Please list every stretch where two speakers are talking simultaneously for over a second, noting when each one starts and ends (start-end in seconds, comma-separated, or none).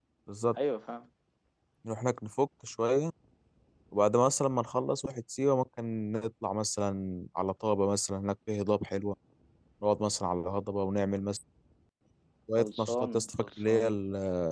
12.6-13.8